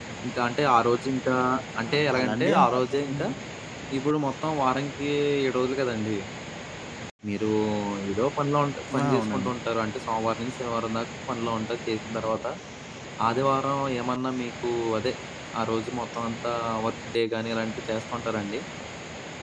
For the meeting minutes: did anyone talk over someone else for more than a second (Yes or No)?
Yes